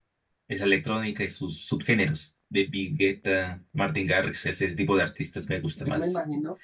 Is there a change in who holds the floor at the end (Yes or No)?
Yes